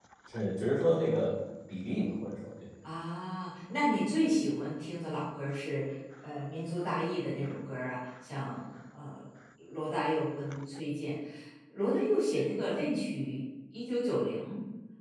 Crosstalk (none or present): none